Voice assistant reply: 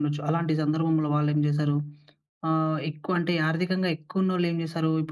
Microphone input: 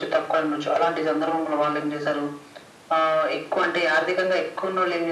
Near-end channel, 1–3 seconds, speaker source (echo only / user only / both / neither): echo only